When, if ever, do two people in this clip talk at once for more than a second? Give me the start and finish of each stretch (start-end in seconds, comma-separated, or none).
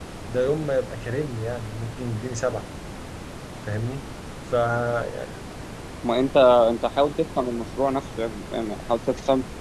none